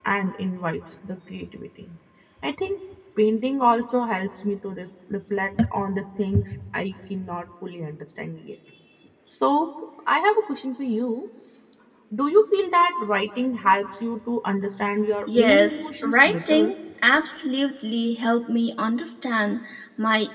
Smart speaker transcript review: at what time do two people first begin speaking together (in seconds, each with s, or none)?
15.3 s